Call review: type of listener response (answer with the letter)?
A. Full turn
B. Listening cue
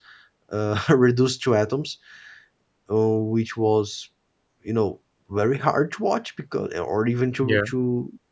B